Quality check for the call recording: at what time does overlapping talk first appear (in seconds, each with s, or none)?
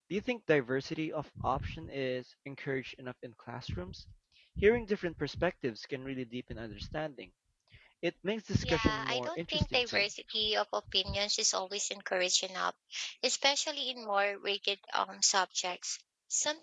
8.6 s